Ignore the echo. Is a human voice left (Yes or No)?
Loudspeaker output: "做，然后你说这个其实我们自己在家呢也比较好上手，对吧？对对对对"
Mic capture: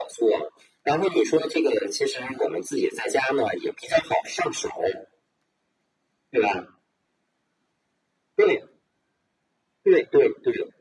No